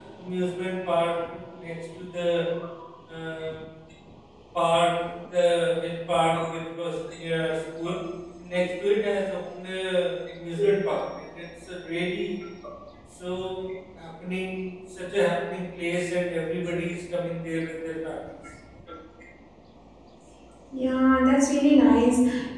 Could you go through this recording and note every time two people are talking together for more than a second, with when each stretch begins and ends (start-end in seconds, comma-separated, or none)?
none